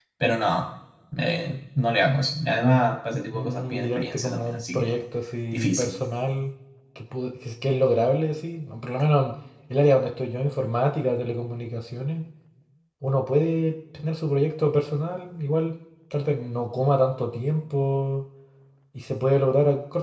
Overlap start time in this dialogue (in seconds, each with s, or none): 3.3 s